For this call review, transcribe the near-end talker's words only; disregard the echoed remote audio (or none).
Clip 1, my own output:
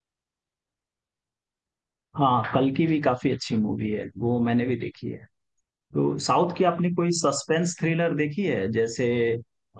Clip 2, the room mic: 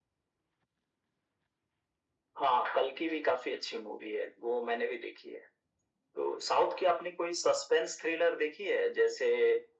none